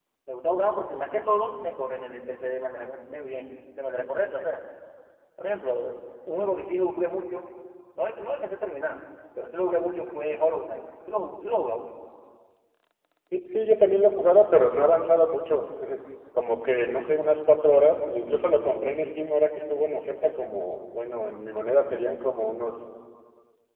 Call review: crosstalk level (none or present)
none